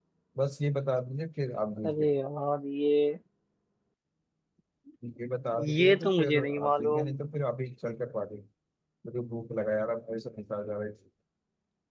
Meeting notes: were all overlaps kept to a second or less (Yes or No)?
No